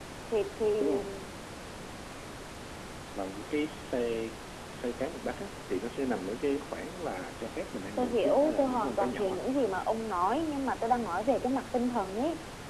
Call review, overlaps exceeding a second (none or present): present